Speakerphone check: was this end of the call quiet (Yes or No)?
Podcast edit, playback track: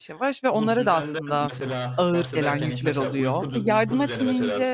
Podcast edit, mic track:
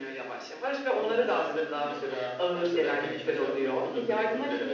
Yes